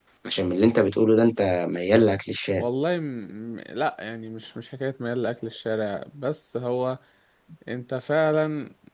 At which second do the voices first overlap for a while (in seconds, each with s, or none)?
none